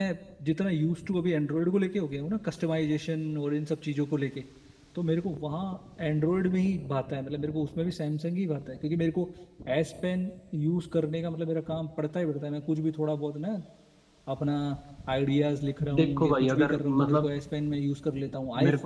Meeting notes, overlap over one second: present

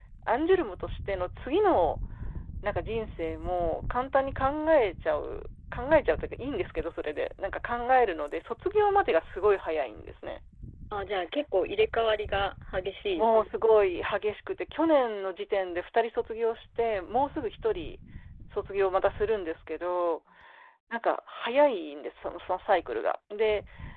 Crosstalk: none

